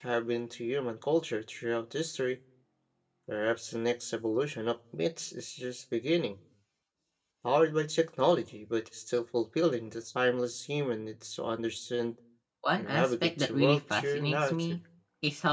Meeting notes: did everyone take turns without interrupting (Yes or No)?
No